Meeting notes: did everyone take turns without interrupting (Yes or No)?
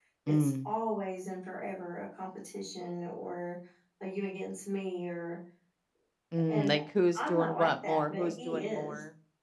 No